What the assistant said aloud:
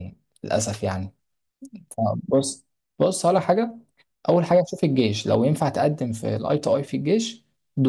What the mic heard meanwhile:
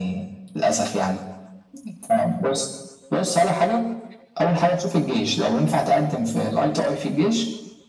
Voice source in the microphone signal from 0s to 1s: echo only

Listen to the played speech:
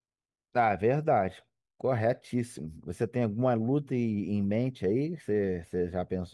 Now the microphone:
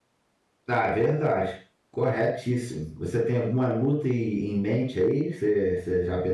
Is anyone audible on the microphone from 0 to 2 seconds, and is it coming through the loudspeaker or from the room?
echo only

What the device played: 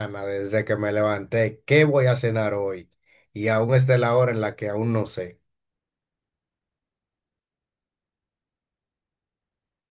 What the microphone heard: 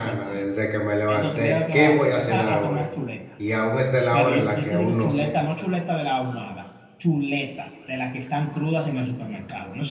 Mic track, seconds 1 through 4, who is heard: both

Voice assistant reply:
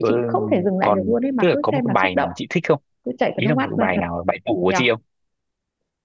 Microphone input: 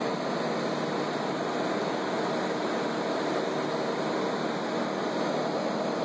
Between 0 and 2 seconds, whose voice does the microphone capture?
neither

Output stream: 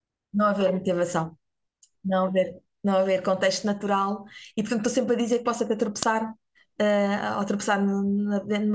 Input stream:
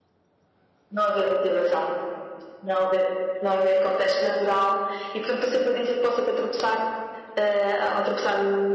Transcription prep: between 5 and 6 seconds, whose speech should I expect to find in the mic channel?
echo only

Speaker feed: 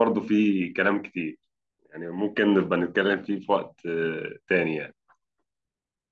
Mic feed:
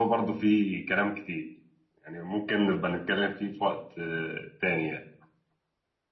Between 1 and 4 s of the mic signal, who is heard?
echo only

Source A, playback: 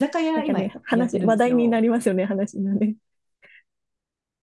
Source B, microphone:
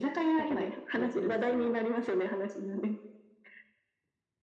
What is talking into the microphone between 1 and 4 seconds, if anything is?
echo only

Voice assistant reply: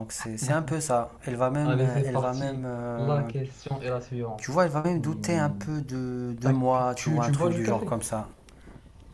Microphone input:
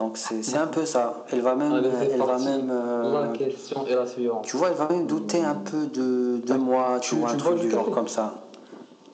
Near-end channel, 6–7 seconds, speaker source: echo only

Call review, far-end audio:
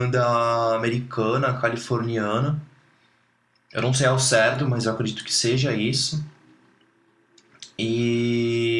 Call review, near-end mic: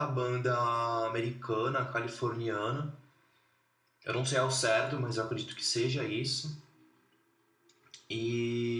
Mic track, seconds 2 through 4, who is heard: echo only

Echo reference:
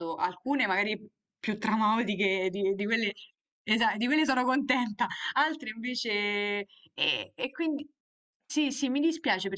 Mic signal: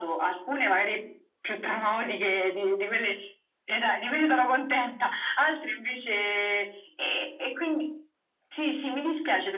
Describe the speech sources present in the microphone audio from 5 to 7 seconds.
echo only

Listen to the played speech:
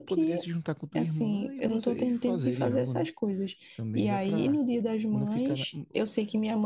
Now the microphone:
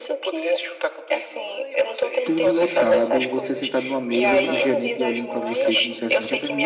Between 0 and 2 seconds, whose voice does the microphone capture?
echo only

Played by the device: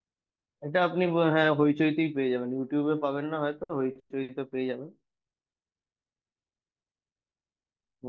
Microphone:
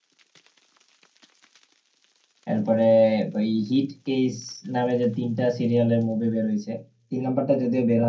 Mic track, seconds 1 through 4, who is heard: user only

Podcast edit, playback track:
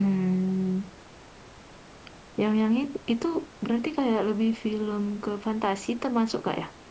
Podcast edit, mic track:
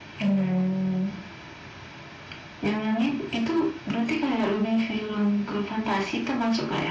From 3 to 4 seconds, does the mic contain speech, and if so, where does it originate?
echo only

